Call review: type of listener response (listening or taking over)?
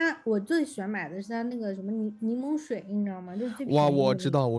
taking over